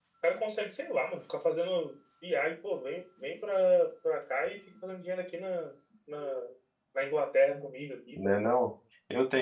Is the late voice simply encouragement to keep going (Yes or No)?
No